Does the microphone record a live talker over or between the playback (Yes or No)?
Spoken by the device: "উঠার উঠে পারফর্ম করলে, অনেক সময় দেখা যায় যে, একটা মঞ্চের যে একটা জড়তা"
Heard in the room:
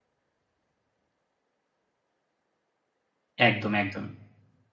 Yes